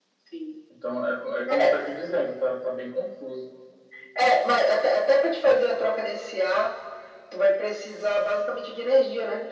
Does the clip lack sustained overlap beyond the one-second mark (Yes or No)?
Yes